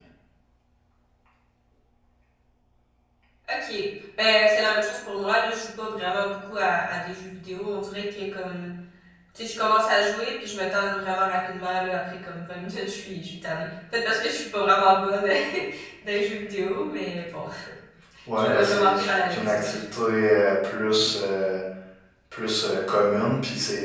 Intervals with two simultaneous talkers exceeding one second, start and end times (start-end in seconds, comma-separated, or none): 18.4-19.7